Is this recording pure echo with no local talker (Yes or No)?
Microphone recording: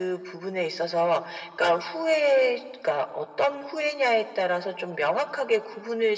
Yes